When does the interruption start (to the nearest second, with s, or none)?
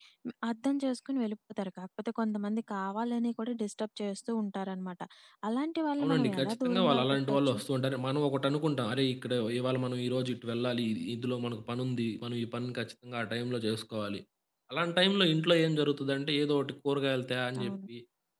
6 s